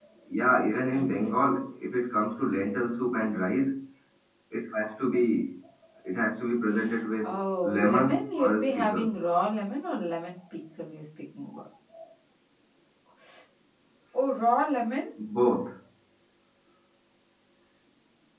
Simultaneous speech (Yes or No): Yes